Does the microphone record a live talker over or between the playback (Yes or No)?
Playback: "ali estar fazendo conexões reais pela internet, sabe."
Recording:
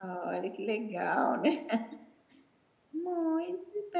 Yes